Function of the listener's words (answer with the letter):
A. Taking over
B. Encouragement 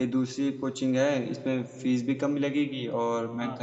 B